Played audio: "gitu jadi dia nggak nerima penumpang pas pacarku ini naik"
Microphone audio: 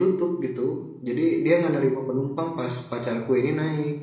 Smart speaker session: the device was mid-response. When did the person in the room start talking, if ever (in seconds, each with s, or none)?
none